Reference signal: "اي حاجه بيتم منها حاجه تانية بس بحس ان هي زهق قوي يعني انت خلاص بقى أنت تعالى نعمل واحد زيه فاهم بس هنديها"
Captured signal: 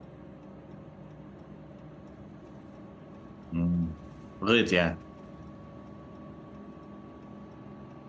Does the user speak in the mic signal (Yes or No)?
Yes